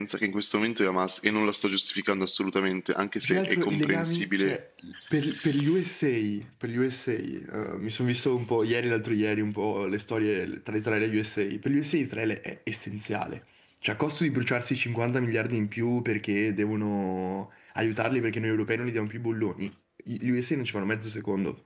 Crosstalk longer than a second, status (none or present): present